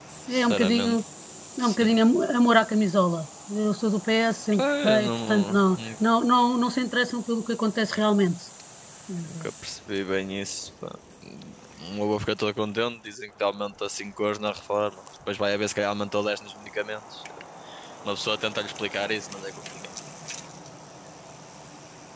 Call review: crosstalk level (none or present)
present